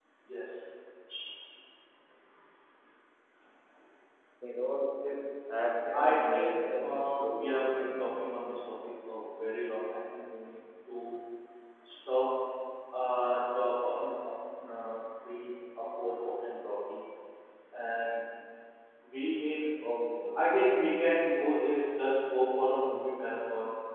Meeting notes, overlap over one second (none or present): present